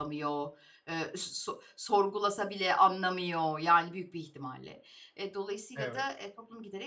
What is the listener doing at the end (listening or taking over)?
listening